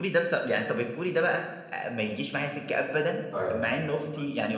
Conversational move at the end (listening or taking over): listening